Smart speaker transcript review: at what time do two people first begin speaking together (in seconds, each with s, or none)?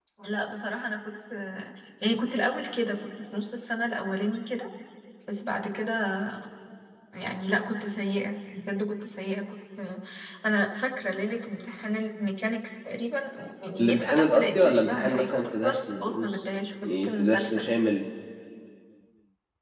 13.8 s